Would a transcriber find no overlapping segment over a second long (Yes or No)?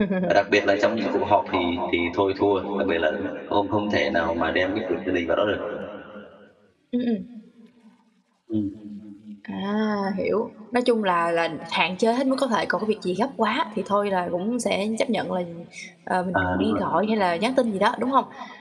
Yes